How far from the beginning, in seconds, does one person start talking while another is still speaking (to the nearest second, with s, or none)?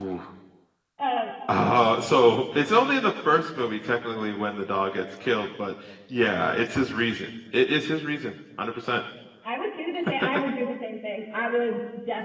none